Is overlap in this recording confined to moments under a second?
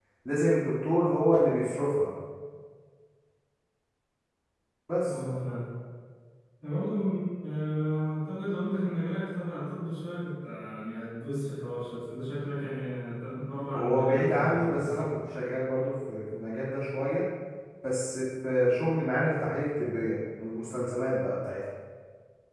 No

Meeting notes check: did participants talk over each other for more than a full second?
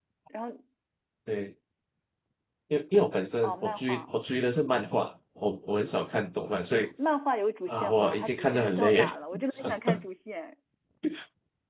Yes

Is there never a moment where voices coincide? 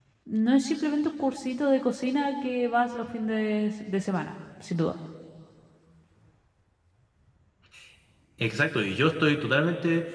Yes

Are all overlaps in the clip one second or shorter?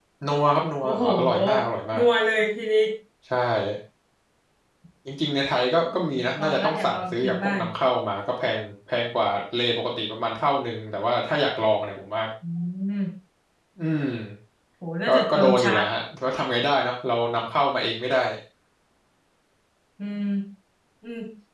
No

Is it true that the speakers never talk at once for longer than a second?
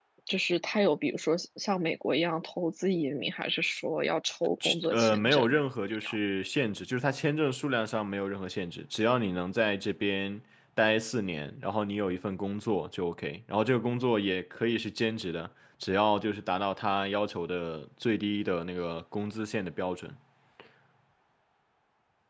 No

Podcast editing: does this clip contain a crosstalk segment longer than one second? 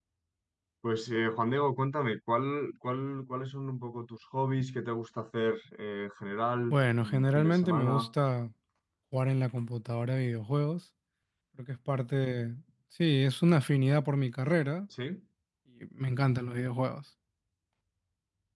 Yes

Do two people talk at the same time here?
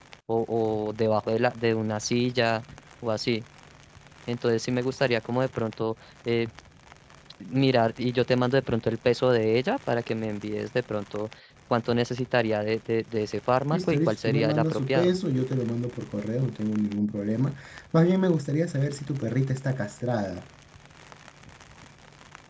Yes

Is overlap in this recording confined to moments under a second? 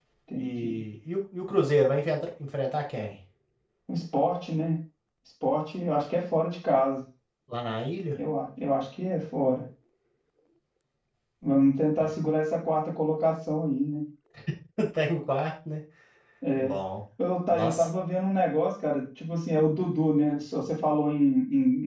Yes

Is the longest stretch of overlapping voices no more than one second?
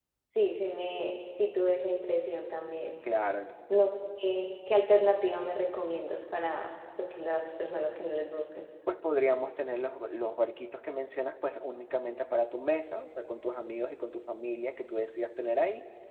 Yes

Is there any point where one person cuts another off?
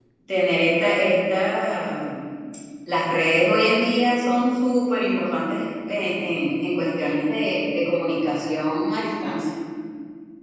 No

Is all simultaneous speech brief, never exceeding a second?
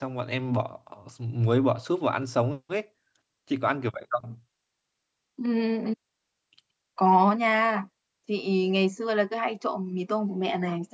Yes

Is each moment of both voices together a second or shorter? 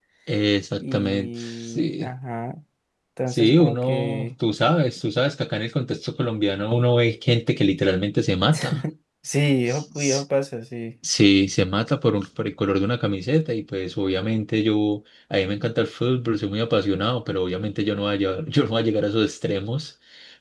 No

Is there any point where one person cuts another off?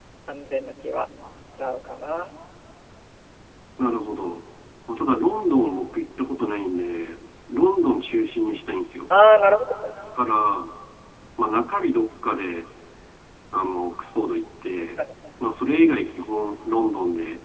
No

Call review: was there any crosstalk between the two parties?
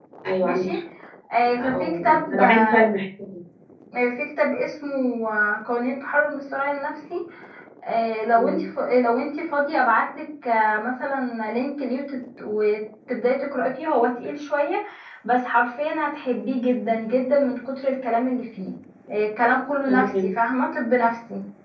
Yes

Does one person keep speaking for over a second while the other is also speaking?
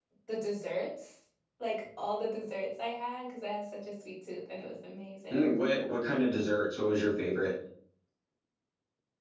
No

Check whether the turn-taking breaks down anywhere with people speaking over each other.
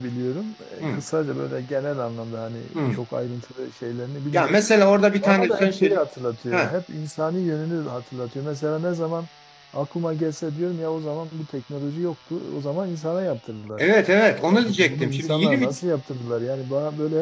Yes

